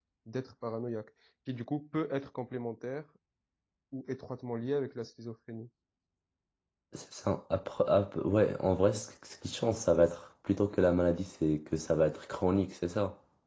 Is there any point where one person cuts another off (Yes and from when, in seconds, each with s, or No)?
No